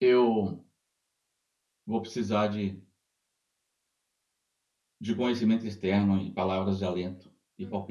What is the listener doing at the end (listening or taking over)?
listening